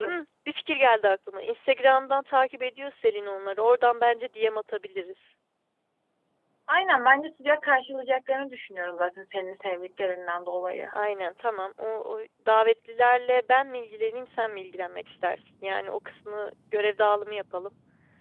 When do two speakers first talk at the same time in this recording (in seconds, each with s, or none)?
none